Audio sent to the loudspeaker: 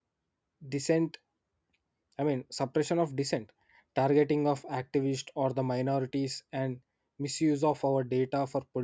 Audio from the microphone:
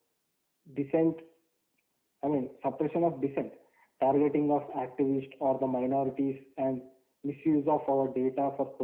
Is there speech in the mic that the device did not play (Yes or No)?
No